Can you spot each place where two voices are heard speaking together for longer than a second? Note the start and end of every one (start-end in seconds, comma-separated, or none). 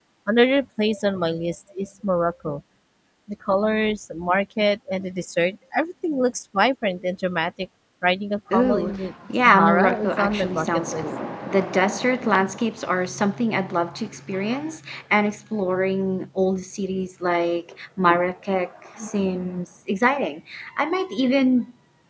9.4-11.0